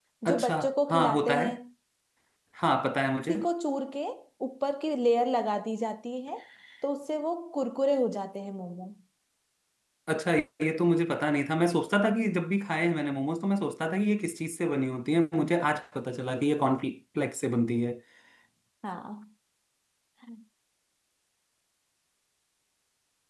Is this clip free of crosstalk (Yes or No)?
No